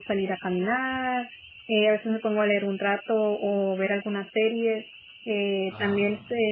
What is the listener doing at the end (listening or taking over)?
listening